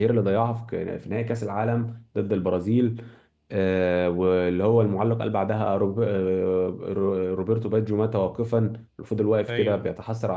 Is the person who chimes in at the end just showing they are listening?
Yes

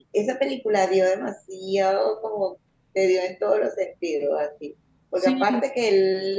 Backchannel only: Yes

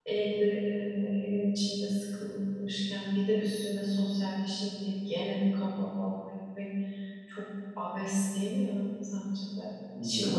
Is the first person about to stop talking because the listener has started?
Yes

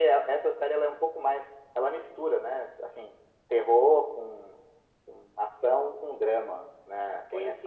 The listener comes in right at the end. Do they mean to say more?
Yes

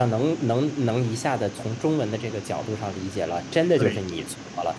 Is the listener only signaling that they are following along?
Yes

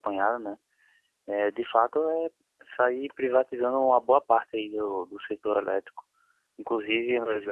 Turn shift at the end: No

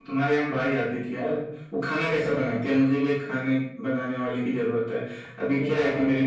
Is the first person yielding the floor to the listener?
No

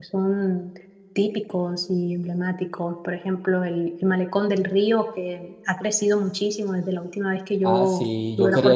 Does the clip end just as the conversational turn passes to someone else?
Yes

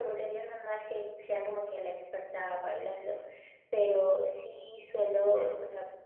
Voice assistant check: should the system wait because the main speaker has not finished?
Yes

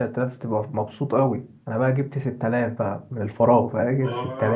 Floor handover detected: No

